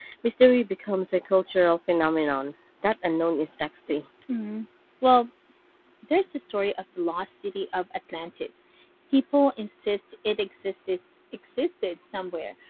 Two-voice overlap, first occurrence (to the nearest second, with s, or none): none